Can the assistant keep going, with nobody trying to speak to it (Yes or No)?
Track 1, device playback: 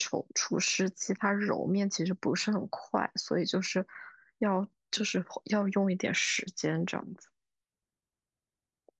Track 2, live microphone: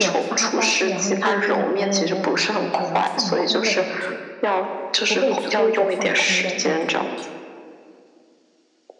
No